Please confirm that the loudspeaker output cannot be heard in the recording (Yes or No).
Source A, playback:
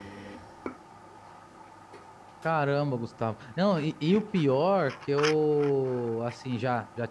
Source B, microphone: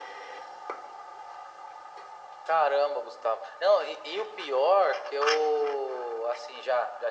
No